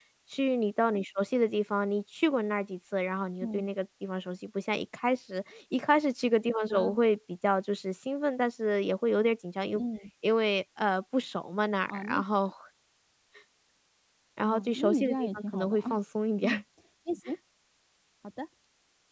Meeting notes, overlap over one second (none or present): present